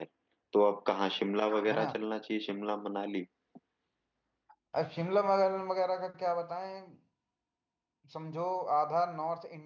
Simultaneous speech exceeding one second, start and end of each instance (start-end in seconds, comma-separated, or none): none